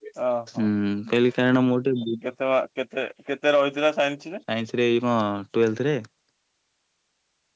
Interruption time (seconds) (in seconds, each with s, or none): none